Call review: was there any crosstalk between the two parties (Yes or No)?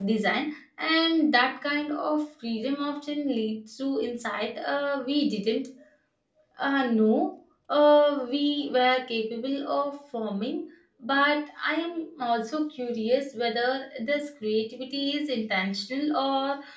No